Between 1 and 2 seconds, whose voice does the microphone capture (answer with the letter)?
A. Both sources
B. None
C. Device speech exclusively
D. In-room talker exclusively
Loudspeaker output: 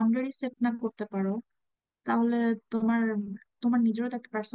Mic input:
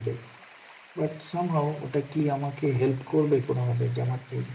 D